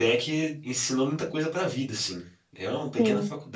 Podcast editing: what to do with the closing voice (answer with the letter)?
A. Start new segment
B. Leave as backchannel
A